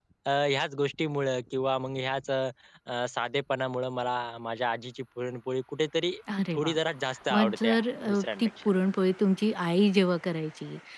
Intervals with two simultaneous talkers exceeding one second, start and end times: 7.3-8.7

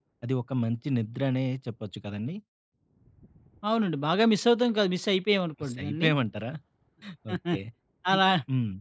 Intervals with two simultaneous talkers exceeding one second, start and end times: none

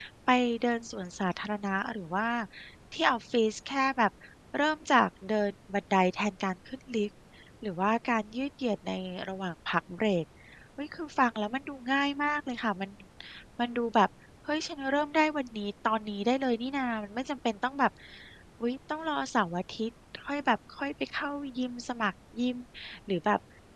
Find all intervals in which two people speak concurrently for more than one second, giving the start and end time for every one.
none

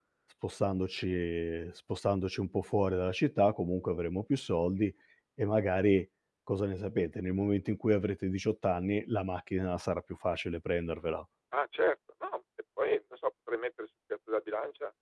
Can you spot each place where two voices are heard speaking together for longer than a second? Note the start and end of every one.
none

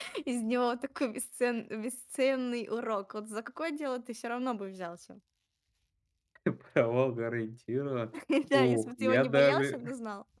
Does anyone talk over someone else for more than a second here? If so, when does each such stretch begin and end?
8.5-9.8

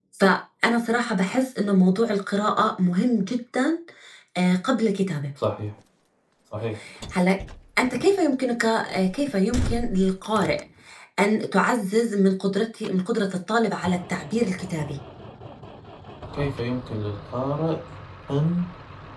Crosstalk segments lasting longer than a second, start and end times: none

